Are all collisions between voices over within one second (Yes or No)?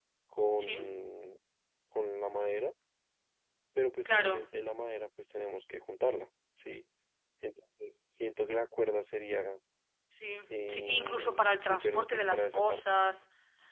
No